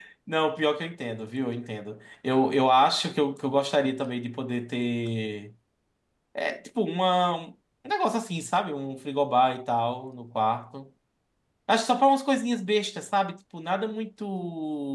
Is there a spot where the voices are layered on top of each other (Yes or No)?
No